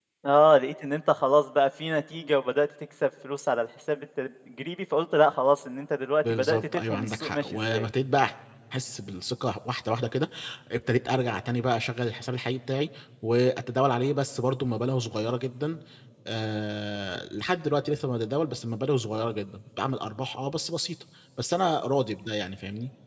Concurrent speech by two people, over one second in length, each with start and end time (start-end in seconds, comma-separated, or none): 6.2-7.9